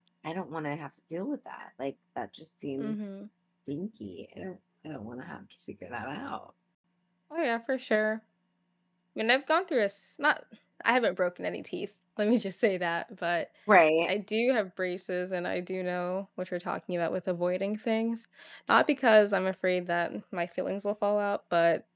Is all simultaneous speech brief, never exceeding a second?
Yes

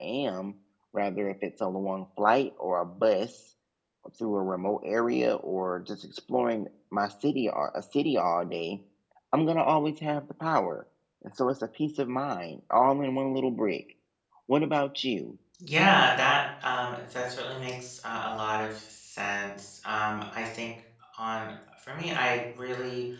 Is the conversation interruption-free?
Yes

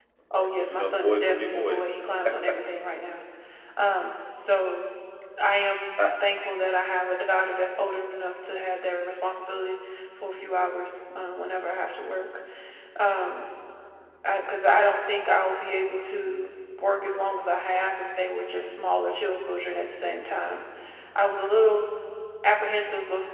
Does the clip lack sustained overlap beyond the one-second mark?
No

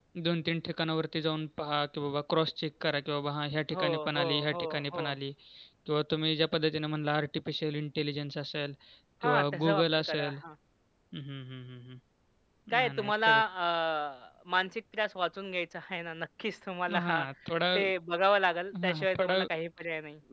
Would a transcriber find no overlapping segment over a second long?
No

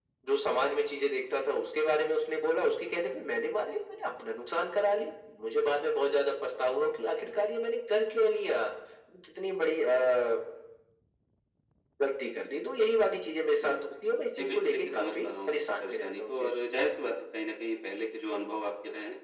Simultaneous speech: Yes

